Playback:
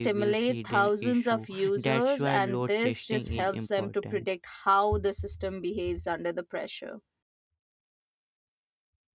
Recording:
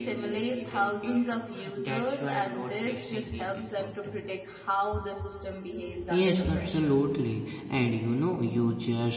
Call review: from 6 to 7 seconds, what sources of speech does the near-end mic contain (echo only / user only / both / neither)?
both